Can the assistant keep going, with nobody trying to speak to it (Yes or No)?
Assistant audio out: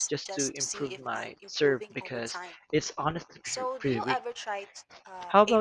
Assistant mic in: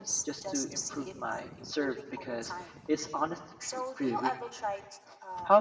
Yes